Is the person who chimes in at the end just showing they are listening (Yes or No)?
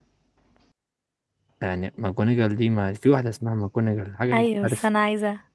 No